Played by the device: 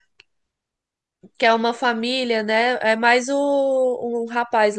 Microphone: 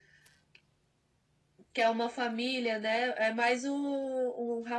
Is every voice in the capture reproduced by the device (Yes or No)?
Yes